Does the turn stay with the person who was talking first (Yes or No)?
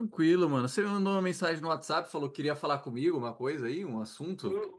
No